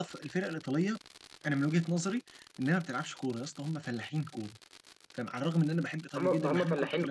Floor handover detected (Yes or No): Yes